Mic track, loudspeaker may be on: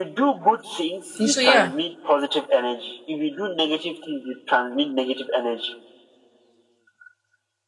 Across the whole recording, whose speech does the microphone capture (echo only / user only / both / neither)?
both